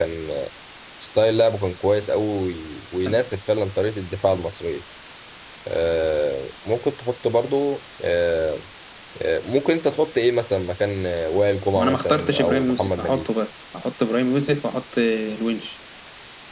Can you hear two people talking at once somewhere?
Yes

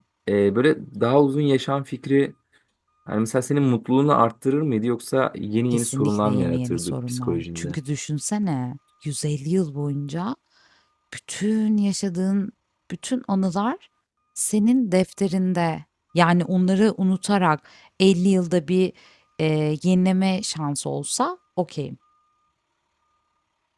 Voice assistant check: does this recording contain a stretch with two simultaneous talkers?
Yes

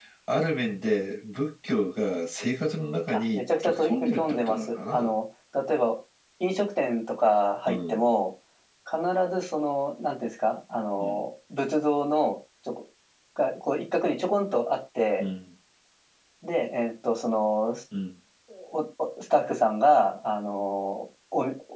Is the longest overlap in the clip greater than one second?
Yes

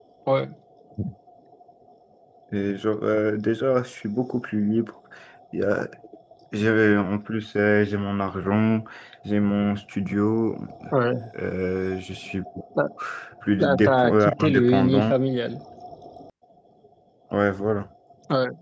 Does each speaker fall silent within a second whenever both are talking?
No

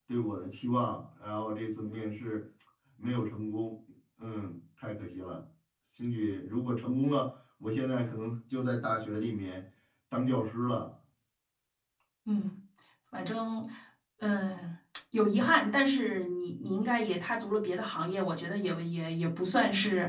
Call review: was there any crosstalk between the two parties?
No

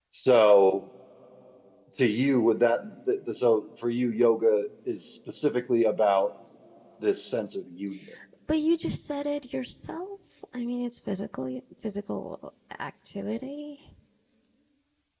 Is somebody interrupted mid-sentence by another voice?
No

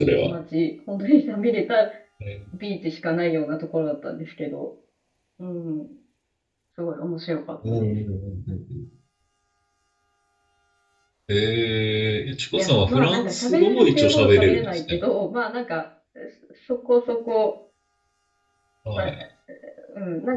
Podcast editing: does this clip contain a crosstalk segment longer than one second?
Yes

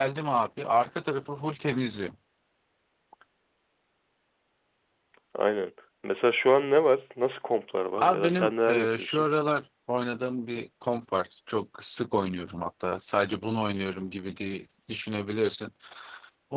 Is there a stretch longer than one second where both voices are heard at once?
Yes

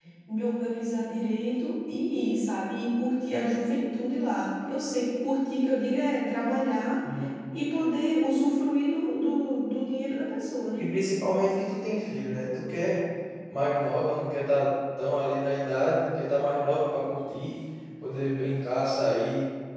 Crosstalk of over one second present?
No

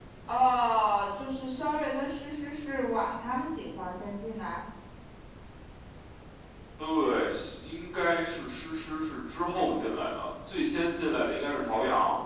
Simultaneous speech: No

